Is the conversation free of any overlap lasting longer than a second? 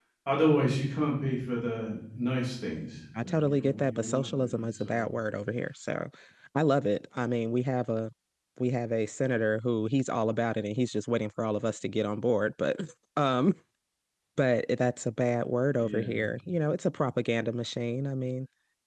No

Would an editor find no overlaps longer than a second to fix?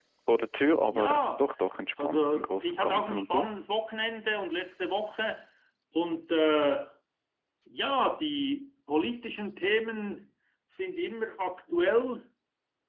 No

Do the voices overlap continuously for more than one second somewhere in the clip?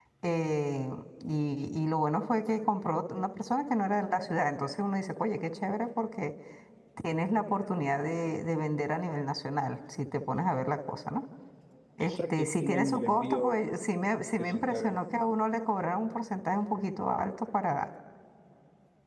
Yes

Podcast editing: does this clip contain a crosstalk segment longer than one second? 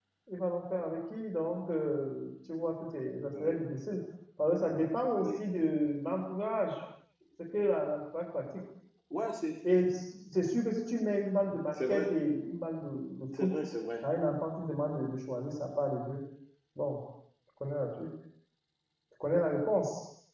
No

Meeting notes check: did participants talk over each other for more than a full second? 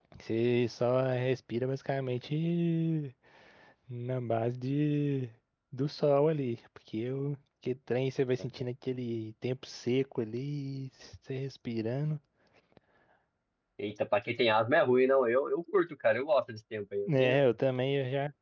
No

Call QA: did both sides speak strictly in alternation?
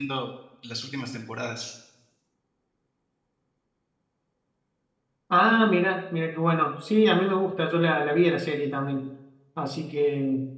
Yes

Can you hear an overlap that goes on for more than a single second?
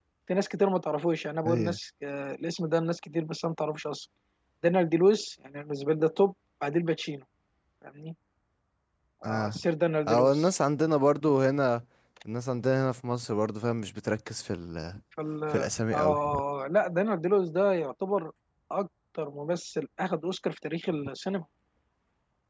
No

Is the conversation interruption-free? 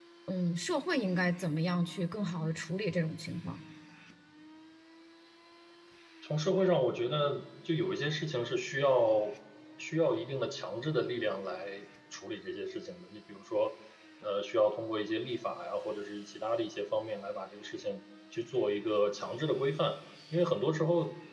Yes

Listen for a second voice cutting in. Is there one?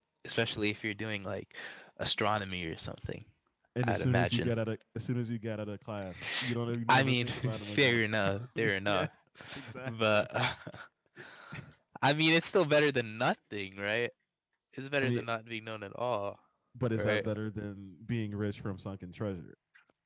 Yes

